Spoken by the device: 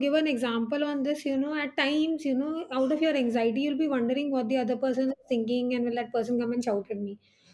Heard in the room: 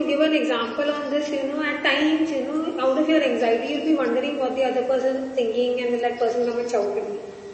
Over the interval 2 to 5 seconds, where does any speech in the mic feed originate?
echo only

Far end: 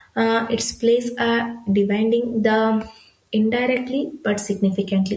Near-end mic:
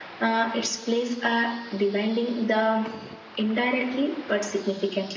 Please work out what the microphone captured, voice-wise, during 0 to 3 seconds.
echo only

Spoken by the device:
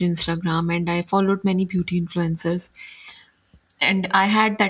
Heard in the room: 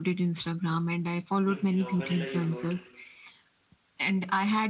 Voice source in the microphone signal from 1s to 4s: both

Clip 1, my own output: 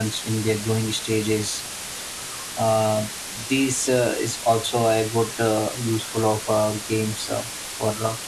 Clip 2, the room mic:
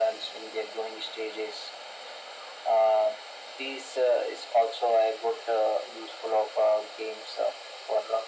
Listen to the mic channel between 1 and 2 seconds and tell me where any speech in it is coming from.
echo only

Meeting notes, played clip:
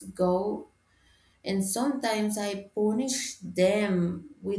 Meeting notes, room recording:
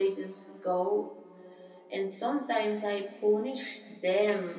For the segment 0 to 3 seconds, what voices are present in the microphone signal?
echo only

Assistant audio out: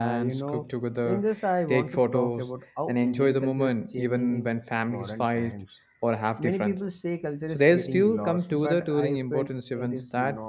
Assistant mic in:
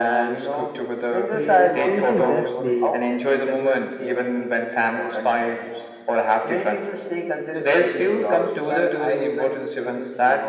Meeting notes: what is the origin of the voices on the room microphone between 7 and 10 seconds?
echo only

